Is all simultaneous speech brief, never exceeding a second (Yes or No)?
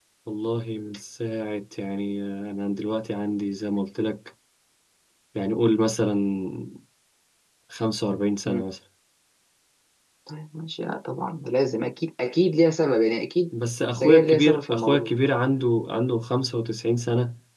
No